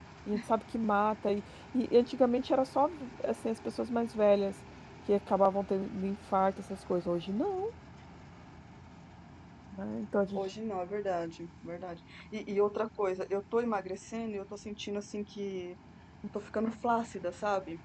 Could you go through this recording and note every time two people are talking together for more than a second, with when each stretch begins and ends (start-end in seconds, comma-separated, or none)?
none